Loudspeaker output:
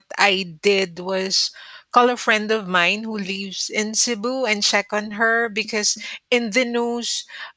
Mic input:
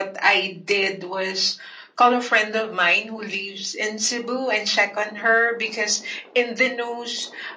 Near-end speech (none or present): none